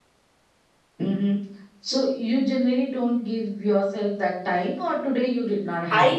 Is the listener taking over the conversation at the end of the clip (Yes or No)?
Yes